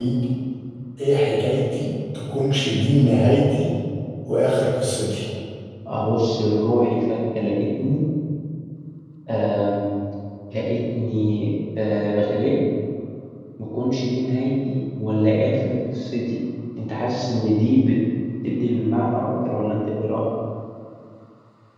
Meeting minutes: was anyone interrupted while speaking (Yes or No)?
No